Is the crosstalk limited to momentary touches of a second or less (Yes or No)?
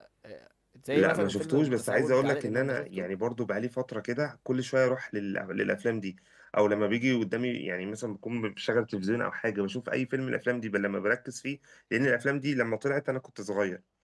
No